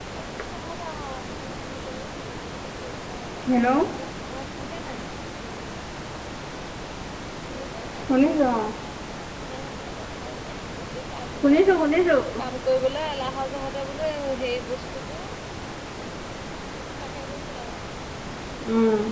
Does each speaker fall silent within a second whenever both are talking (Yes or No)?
Yes